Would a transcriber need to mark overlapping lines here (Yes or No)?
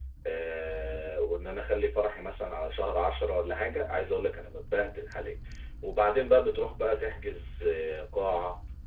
No